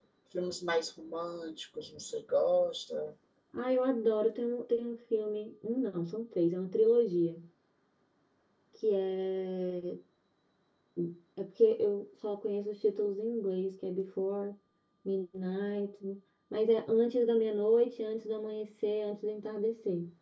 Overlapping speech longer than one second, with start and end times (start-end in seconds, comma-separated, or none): none